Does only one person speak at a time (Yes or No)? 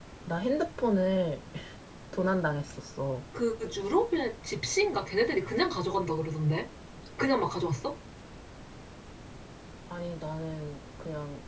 Yes